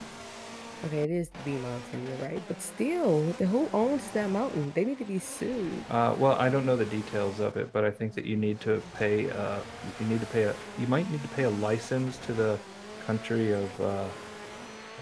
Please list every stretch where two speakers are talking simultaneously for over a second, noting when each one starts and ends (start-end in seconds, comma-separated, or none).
none